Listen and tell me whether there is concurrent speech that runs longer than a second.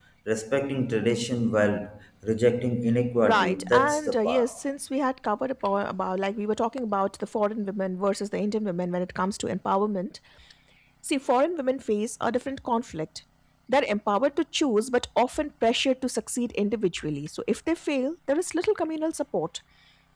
Yes, from 3.2 s

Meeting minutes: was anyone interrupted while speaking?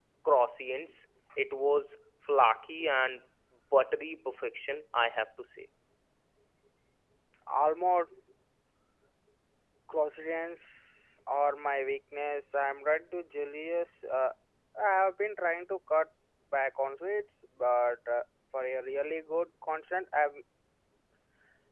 No

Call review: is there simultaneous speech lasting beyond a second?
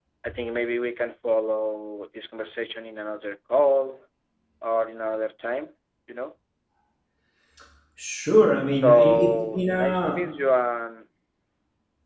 Yes, from 8.7 s

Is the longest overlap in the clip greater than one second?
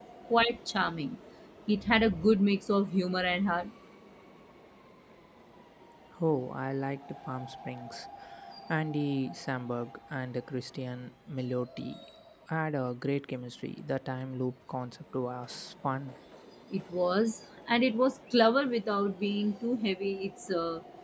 No

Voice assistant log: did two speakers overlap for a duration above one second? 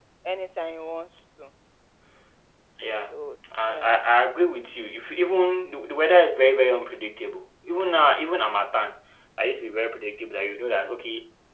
No

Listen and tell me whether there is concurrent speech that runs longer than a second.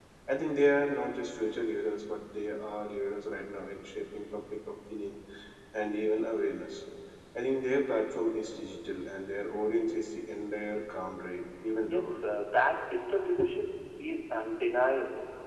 No

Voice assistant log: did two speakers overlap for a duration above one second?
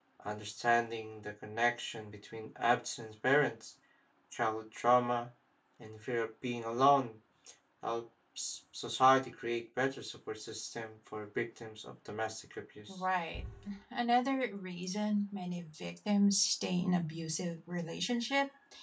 No

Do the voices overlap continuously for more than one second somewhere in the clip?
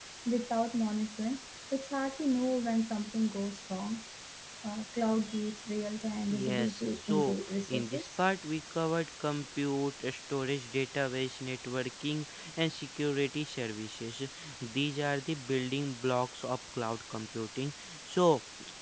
Yes, from 6.3 s

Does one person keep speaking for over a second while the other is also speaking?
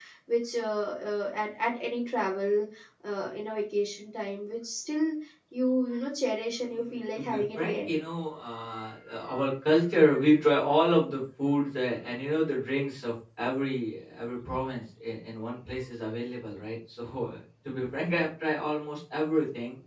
Yes, from 6.6 s

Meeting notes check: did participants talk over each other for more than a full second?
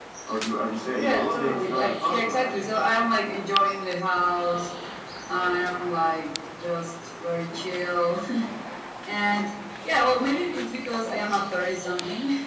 Yes, from 1.0 s

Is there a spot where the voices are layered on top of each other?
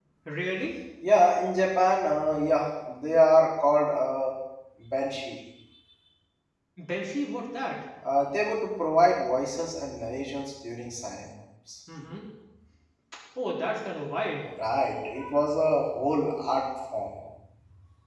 No

